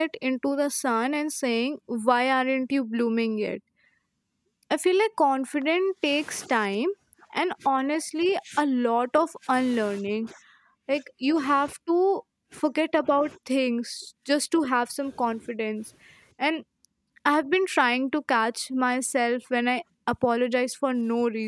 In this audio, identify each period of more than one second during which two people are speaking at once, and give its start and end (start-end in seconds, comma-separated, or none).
none